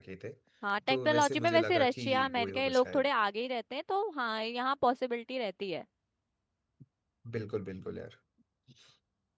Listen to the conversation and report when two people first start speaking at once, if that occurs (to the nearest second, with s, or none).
1 s